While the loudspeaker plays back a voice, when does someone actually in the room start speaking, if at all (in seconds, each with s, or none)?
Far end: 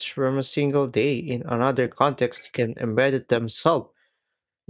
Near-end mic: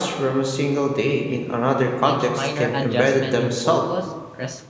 2.0 s